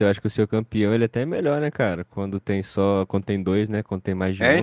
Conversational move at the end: taking over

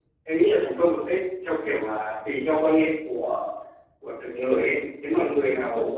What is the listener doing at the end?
listening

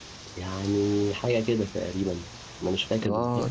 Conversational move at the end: listening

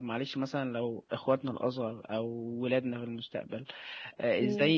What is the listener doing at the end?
listening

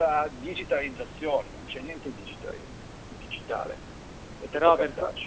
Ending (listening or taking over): taking over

